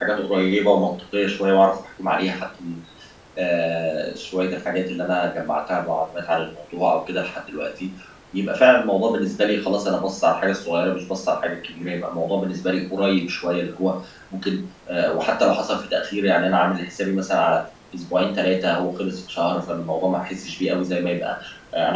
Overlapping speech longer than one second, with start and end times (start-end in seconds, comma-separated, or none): none